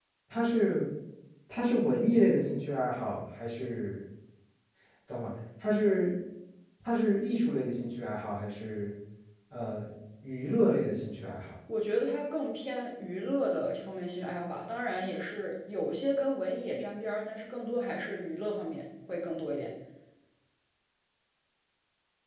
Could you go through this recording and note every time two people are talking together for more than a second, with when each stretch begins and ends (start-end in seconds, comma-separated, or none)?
none